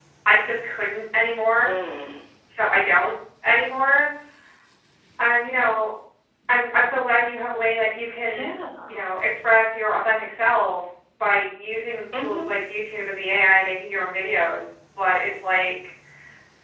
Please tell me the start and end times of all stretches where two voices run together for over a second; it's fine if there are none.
none

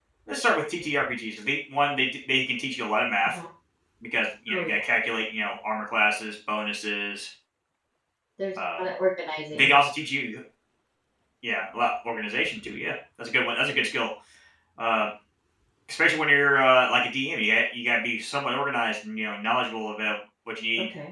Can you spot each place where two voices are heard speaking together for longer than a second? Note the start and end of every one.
none

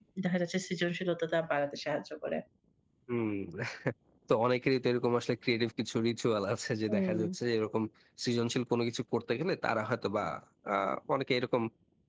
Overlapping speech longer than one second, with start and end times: none

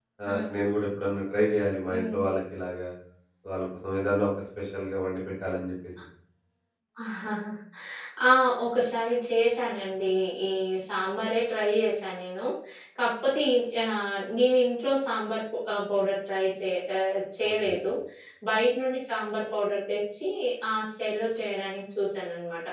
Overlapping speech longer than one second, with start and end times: none

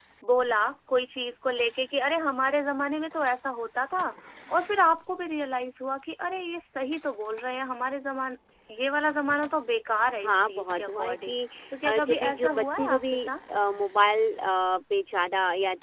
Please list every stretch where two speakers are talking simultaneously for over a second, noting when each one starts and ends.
10.2-11.4, 11.8-13.3

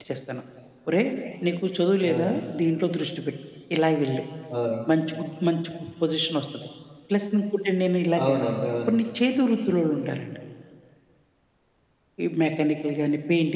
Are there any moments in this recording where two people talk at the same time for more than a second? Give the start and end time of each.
none

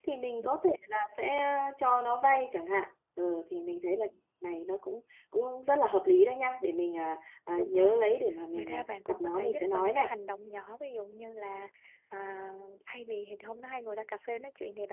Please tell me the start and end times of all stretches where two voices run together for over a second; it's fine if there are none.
8.5-10.1

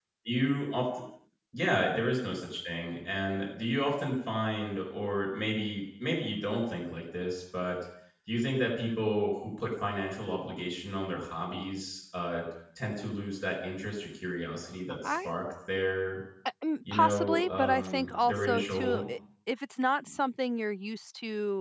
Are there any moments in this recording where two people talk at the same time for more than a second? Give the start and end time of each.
16.9-19.0

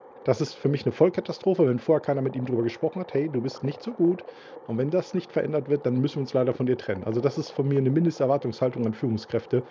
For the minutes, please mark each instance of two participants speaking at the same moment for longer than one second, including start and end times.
none

